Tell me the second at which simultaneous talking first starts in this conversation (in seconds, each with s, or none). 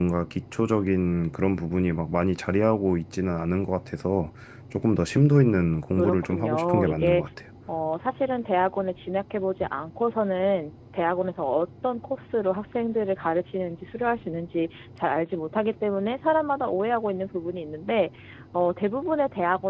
6.0 s